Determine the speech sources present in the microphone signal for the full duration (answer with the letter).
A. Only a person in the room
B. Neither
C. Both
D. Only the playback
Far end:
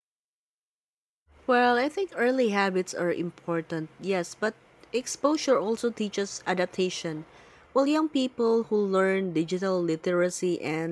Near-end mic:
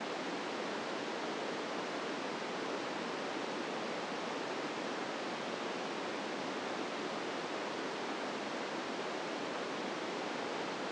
B